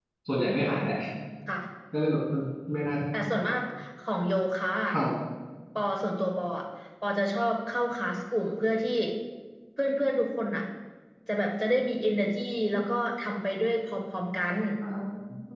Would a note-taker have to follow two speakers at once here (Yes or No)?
No